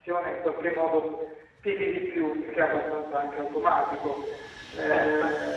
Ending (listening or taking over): listening